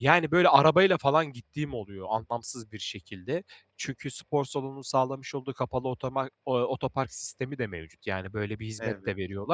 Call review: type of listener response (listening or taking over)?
listening